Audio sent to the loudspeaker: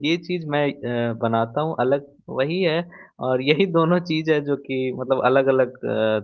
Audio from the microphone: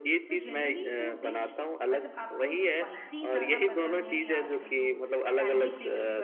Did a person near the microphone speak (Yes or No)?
Yes